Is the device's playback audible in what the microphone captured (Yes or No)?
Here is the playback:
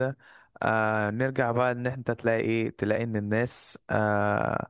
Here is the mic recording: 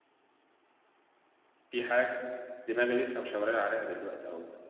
No